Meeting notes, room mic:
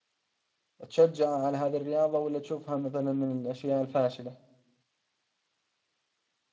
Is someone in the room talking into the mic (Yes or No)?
Yes